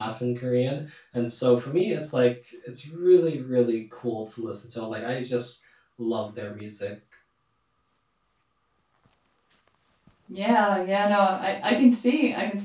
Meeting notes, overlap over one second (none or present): none